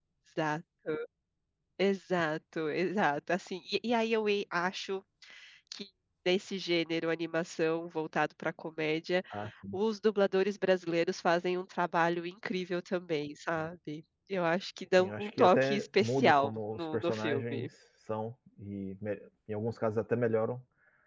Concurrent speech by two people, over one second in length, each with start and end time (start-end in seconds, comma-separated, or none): 15.0-17.7